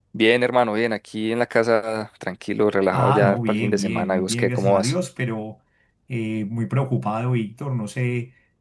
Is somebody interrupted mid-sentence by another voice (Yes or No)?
Yes